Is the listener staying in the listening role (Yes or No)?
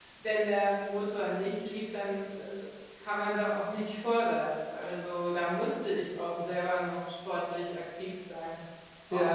No